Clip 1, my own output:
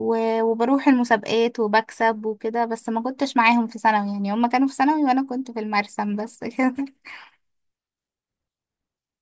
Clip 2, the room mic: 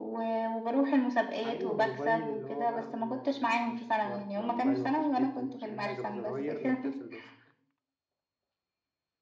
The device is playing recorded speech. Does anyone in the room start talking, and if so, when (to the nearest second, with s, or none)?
1 s